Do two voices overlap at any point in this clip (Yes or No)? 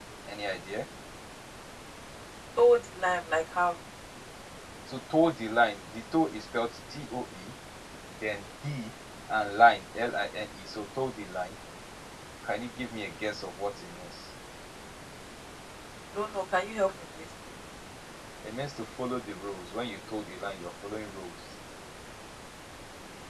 No